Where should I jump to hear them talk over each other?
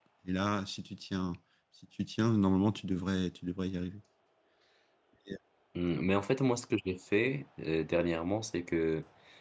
none

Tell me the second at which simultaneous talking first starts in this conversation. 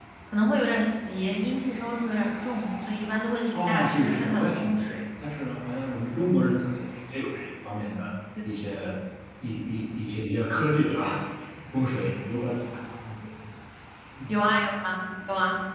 3.5 s

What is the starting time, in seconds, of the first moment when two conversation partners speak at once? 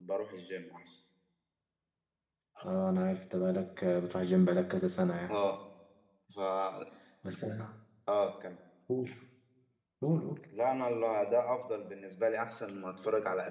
none

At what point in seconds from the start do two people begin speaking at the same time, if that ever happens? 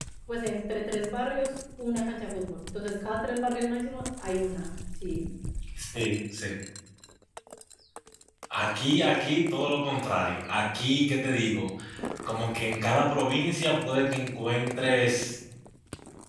none

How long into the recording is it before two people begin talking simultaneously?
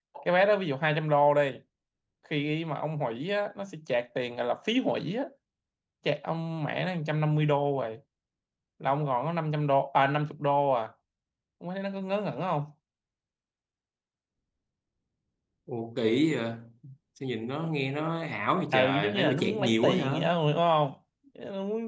18.7 s

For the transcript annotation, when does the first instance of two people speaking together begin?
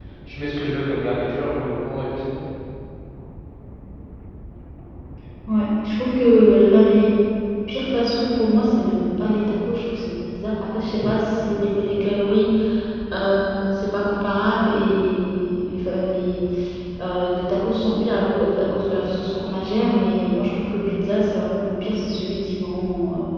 none

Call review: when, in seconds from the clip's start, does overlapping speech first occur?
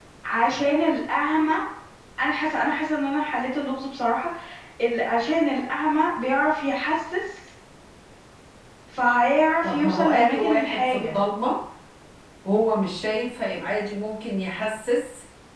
9.6 s

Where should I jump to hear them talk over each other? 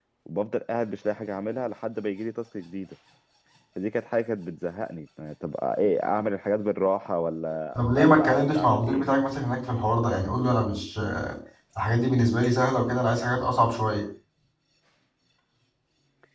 7.8 s

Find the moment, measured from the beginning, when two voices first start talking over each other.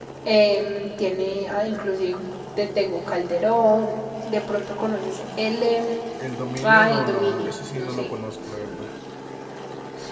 6.6 s

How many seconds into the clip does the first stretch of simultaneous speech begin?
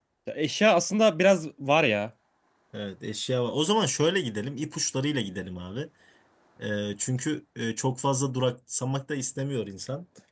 none

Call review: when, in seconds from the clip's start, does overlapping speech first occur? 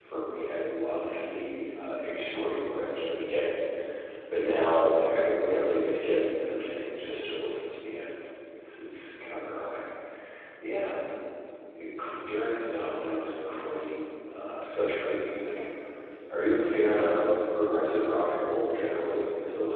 none

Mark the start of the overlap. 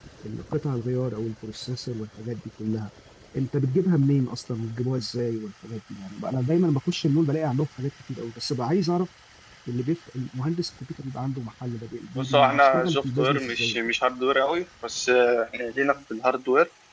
12.2 s

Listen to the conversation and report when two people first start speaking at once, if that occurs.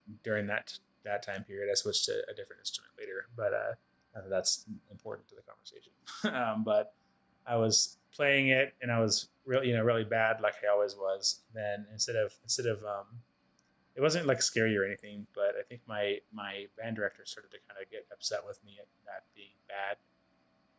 none

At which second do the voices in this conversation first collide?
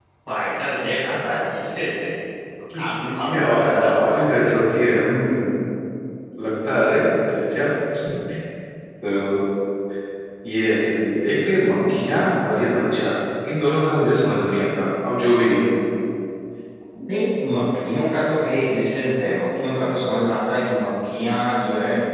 2.7 s

